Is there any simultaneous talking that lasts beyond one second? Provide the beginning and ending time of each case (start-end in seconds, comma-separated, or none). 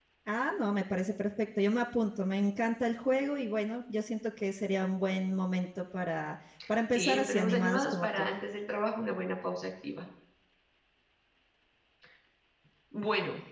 7.0-8.3